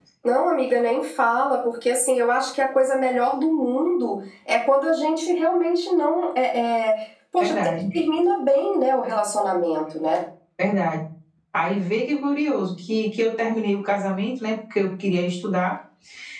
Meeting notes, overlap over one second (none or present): none